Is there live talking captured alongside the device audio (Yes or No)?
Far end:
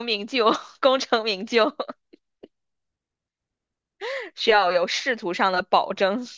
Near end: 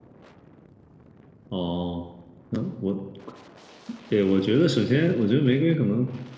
Yes